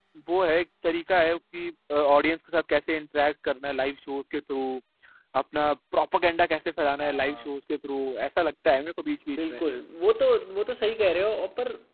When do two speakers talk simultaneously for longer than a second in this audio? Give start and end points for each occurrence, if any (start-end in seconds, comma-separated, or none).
none